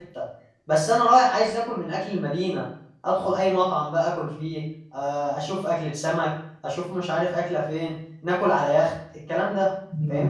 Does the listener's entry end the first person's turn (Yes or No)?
Yes